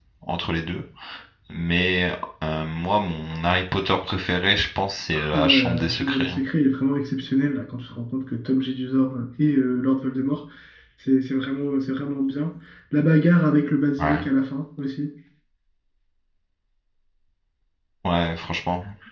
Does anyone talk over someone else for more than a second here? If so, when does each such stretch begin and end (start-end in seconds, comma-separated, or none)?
5.1-6.4